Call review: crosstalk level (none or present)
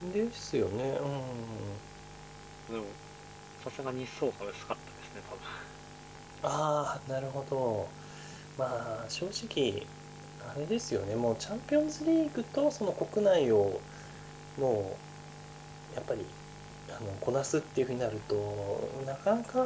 none